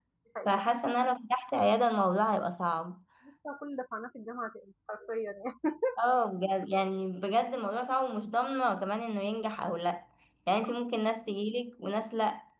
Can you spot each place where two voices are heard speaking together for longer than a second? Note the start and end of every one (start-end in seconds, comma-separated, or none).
none